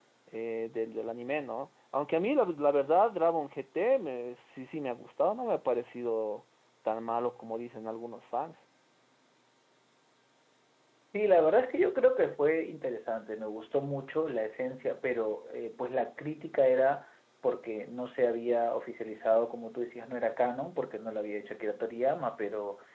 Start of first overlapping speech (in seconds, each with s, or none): none